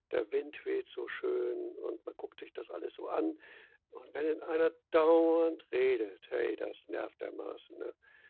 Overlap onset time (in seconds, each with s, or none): none